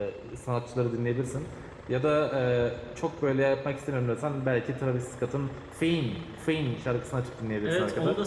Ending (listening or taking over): taking over